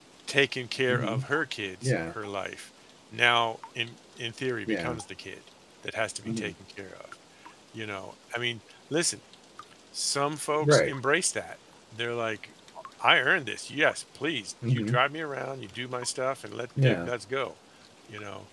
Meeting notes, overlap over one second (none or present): none